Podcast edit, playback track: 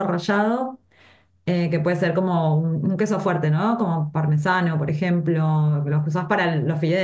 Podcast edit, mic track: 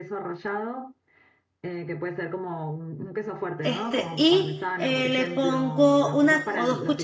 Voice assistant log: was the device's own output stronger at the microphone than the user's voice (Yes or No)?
No